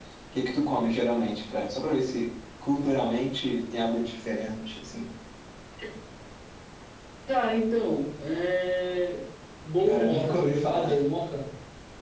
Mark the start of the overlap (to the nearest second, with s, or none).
10 s